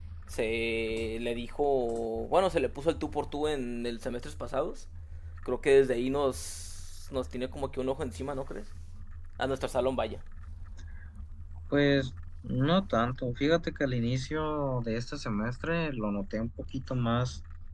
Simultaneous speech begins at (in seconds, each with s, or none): none